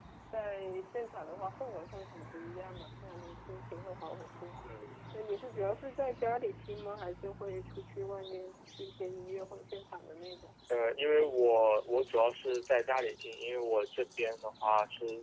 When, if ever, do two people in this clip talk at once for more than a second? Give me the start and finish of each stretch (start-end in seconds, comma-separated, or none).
none